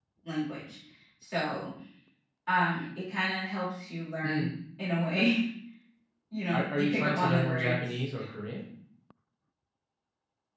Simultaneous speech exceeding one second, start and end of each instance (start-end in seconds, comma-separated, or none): 6.5-7.8